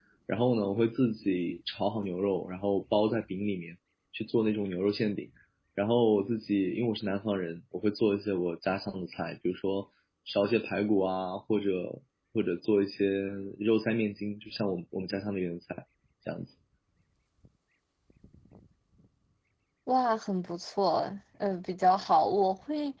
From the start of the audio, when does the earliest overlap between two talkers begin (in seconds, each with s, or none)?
none